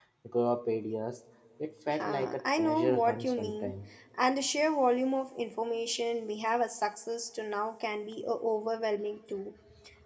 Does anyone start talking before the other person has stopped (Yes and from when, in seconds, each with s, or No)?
Yes, from 1.9 s